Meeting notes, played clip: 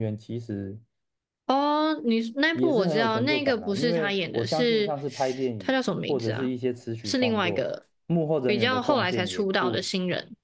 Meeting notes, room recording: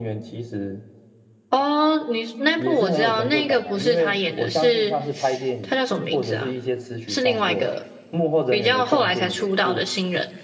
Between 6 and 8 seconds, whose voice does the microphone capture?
echo only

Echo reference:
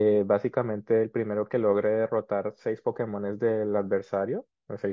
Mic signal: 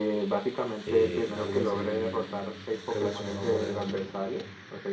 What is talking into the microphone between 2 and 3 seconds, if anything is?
both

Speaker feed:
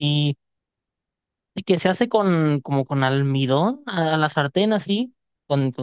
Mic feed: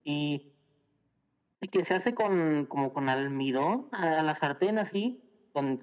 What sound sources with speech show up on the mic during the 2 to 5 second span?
echo only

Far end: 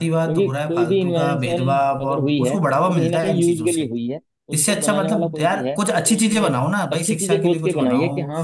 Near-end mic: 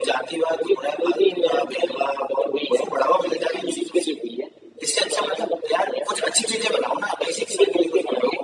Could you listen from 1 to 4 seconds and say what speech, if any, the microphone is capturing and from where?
echo only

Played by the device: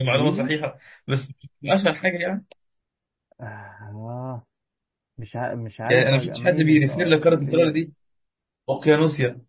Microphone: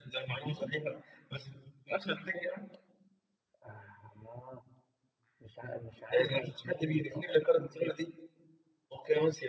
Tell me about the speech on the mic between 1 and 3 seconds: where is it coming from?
echo only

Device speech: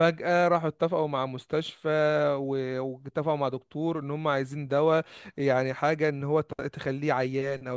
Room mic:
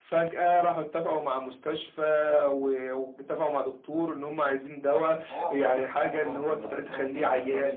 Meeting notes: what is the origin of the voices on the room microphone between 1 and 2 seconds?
echo only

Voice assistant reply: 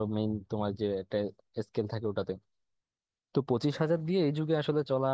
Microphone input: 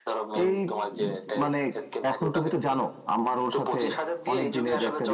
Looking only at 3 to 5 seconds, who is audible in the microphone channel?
both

